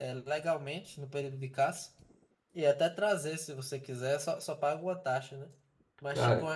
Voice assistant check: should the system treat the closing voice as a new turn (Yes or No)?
No